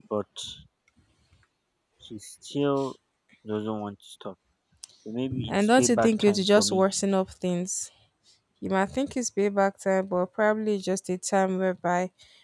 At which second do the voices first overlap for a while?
5.5 s

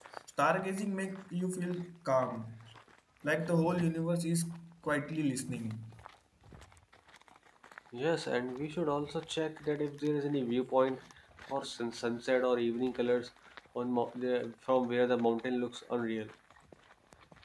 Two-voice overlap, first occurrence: none

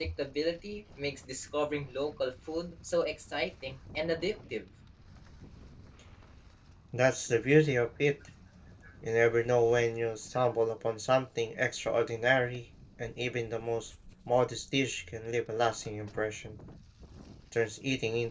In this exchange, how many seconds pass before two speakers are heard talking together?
none

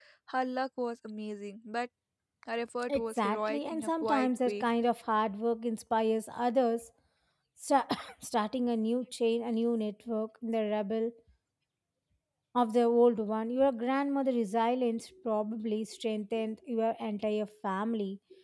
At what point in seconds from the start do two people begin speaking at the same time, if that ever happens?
2.9 s

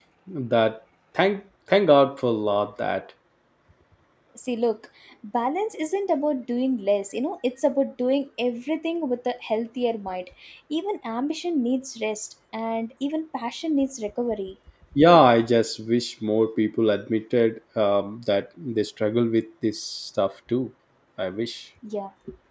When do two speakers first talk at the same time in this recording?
none

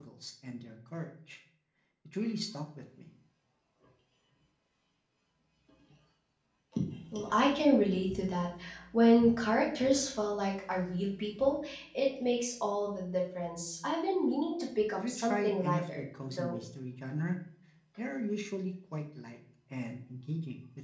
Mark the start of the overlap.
15.0 s

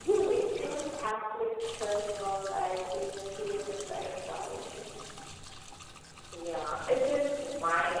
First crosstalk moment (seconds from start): none

